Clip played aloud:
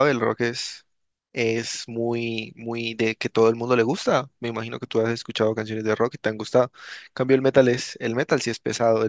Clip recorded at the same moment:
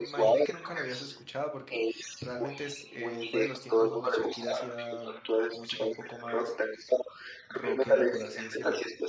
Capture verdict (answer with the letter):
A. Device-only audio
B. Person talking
B